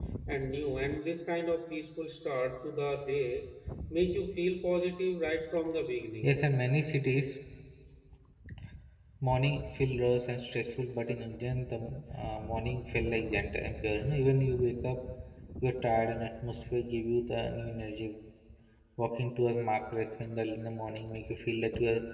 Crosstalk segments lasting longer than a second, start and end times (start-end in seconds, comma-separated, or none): none